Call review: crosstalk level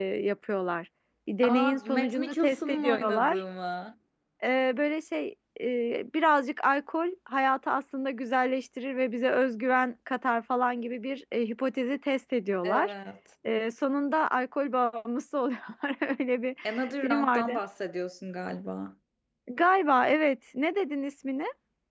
present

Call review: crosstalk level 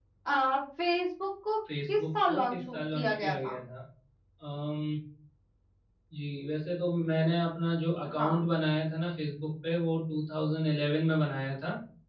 present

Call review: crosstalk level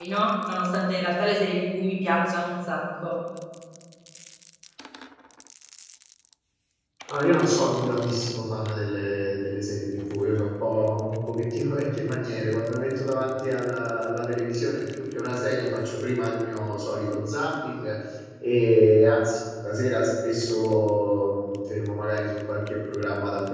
none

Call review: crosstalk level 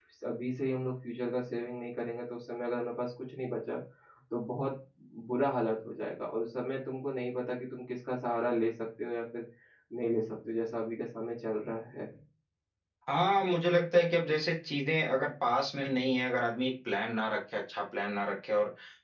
none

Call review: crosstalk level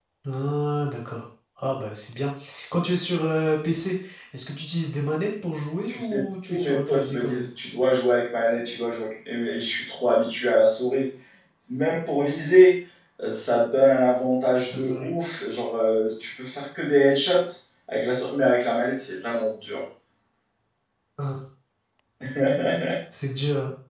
present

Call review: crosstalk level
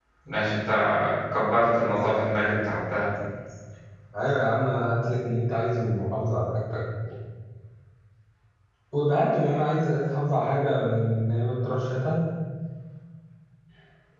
none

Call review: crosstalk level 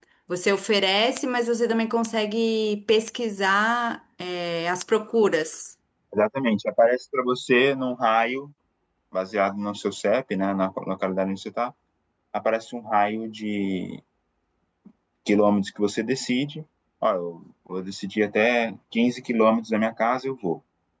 none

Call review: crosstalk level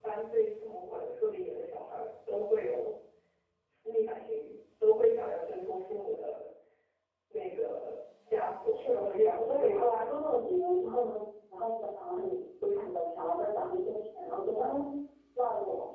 present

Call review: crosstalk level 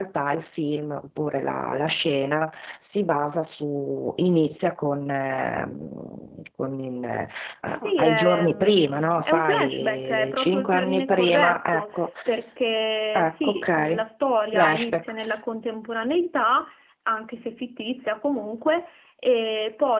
present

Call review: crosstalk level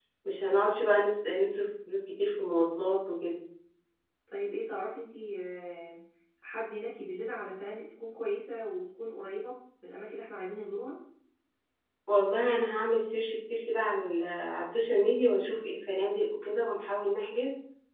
none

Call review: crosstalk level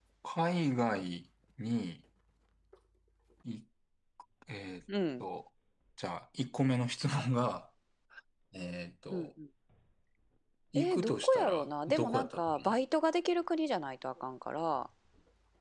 present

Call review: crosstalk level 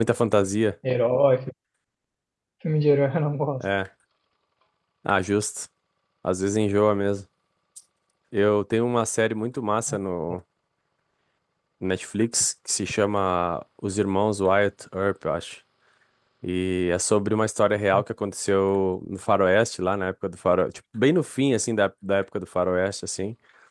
none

